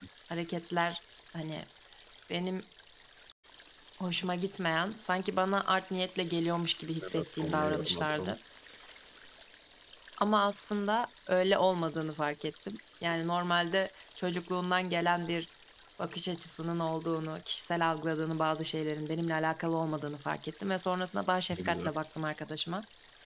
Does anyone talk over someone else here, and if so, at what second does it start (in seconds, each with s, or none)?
7.0 s